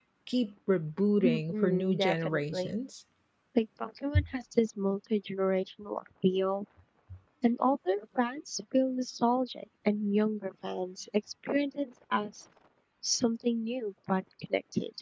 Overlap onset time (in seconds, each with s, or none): 1.2 s